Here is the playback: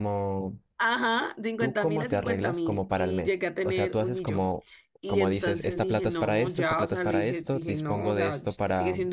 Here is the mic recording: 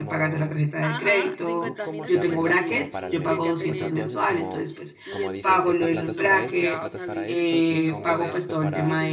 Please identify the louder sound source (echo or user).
user